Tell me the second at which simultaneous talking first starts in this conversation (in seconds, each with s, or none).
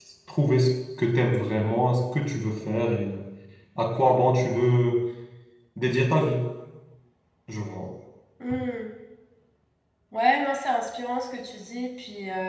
none